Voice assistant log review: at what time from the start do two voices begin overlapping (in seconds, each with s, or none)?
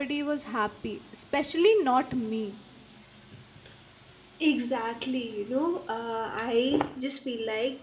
none